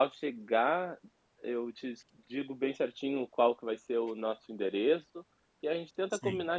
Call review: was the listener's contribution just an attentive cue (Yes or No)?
Yes